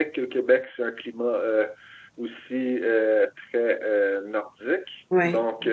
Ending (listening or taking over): listening